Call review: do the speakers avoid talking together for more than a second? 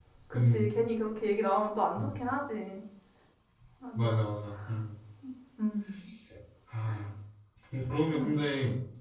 Yes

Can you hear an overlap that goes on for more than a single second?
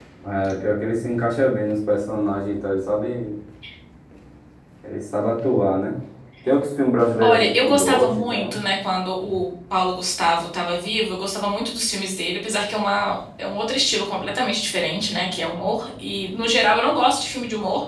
Yes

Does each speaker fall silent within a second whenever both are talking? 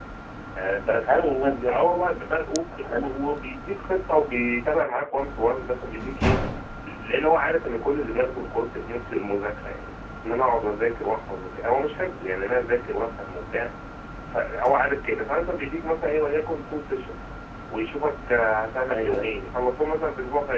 Yes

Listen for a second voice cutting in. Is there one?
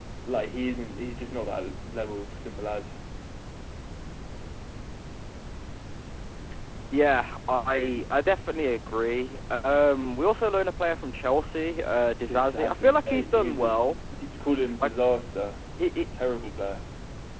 Yes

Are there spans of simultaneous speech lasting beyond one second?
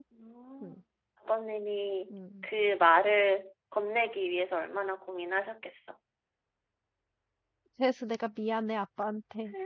No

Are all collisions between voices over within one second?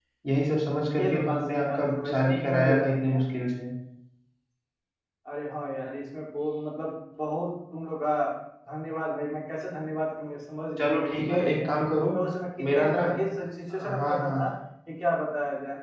No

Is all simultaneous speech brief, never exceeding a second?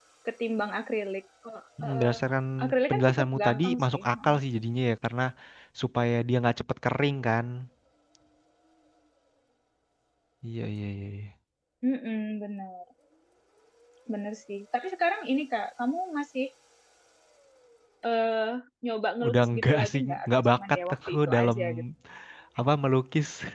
No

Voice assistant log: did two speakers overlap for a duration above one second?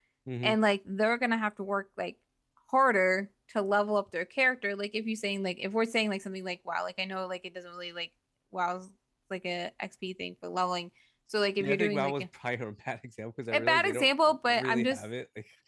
Yes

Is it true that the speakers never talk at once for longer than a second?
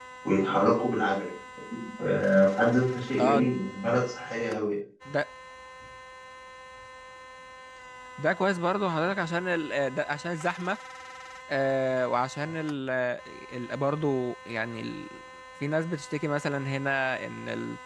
Yes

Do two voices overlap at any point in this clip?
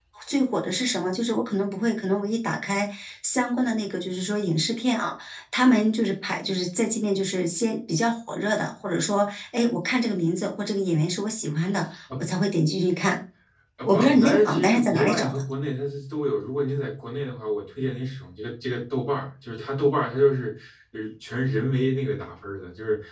Yes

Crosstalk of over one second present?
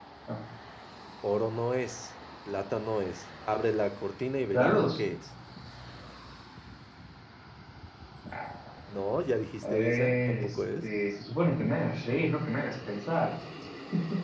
Yes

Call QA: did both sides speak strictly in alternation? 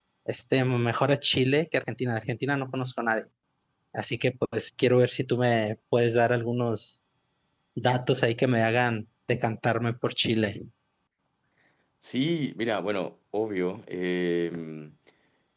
Yes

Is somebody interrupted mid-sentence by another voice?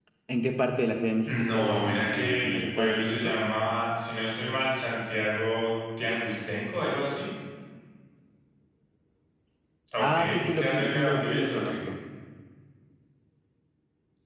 Yes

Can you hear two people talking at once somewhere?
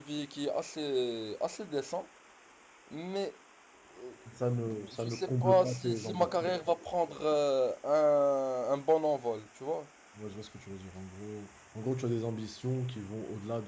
Yes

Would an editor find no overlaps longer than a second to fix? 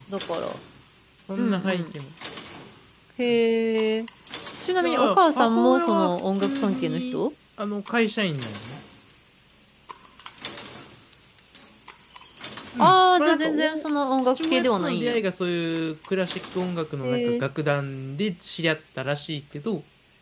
No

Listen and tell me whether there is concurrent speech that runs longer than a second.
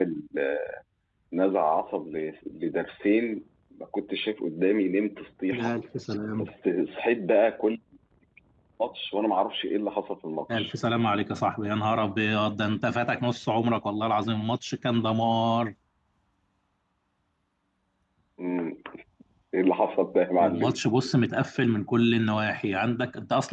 No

